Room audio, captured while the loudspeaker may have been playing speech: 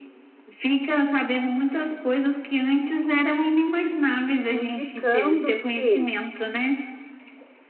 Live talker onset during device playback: 5 s

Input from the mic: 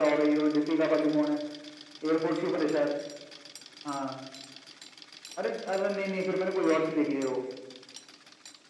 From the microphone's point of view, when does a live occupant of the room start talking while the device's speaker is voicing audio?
none

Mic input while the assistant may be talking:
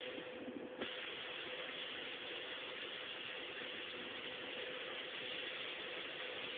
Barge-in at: none

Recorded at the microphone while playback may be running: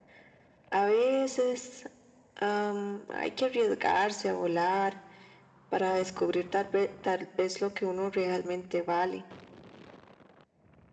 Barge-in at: none

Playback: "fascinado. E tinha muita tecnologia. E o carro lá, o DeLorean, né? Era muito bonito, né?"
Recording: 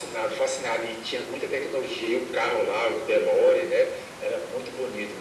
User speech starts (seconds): none

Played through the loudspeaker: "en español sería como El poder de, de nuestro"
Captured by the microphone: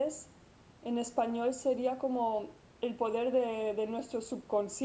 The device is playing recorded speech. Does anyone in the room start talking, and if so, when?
none

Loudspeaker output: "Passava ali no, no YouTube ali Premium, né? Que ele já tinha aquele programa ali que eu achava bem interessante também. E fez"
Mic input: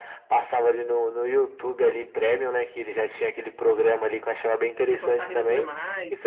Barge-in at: 5 s

